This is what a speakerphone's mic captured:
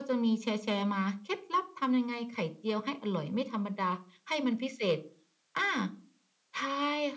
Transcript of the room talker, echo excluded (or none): none